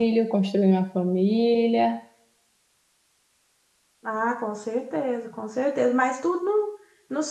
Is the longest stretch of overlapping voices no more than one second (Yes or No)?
Yes